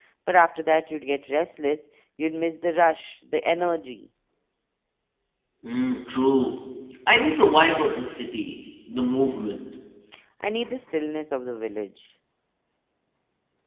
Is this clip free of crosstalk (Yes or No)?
Yes